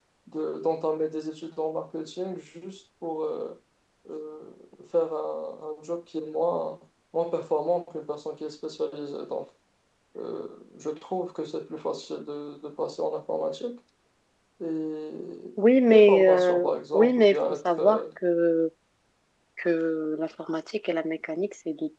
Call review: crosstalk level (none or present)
present